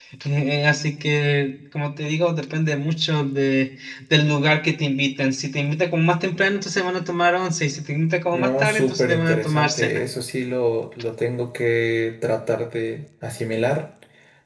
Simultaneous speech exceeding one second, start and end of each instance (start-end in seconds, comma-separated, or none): 8.3-10.0